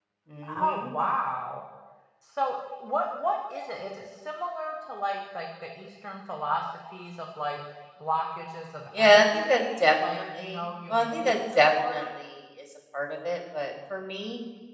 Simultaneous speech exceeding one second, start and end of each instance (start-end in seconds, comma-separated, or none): 9.0-12.0